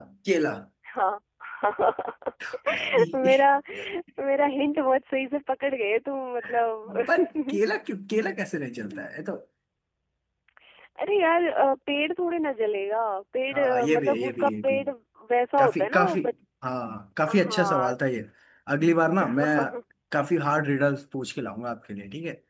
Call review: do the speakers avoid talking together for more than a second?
No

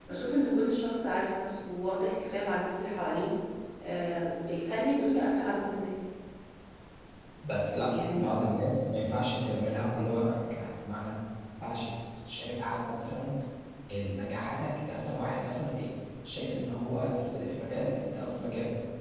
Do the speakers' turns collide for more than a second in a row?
No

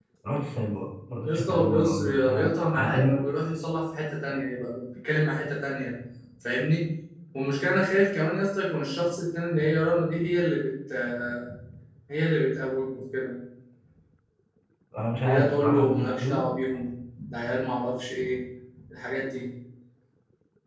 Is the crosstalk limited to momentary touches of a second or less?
No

